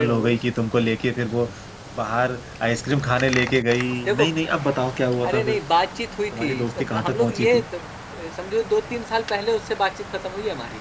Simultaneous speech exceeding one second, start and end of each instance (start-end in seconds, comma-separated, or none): 6.3-7.6